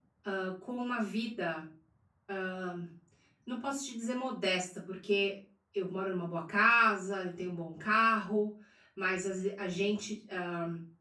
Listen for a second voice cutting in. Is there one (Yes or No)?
No